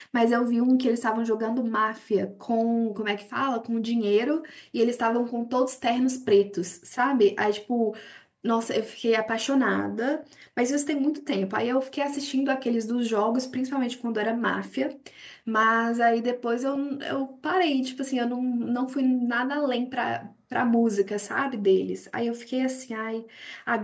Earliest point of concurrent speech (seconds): none

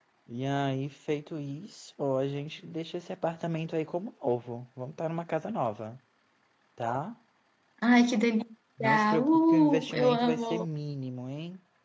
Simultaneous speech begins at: 8.8 s

